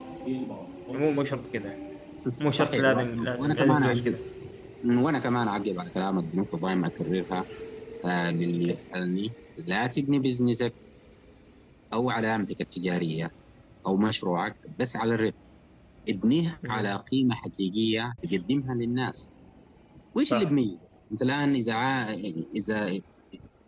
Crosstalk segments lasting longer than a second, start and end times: 2.6-4.2

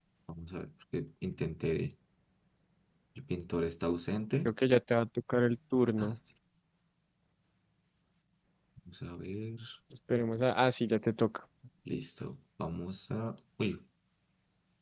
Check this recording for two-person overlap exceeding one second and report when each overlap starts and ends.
none

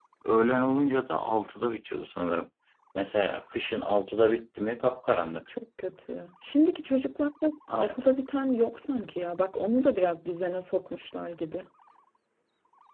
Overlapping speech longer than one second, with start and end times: none

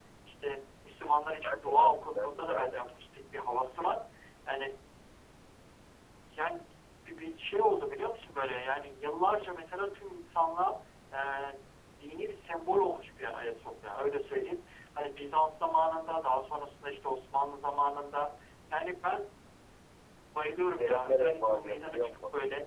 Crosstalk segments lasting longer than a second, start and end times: 1.4-2.8, 20.7-22.1

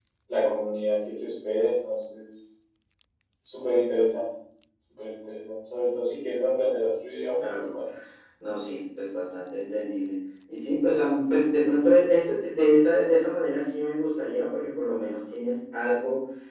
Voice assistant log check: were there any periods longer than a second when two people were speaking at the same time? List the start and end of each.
none

